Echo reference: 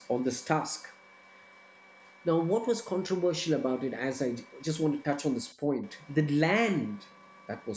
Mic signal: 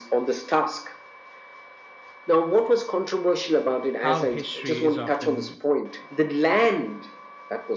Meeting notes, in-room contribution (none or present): present